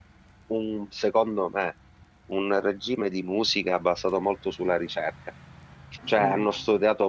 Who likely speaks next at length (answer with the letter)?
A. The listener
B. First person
B